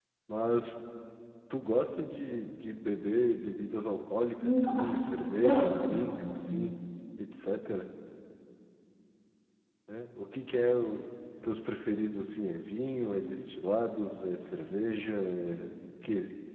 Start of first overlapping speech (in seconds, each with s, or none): 4.4 s